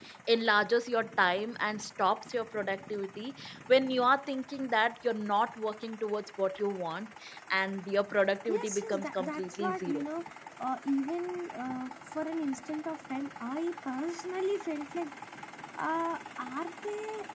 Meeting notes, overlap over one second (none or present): present